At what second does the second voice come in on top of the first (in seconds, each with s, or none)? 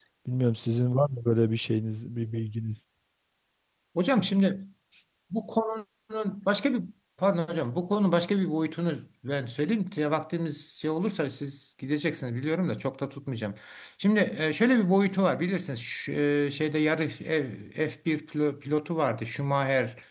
none